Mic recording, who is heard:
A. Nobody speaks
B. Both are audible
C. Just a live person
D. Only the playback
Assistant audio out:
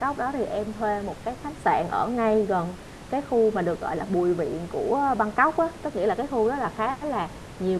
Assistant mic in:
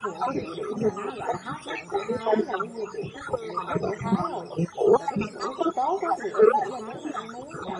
B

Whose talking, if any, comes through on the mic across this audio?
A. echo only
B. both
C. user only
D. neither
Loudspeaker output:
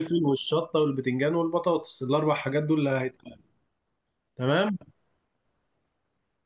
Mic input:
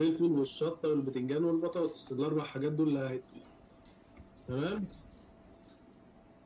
A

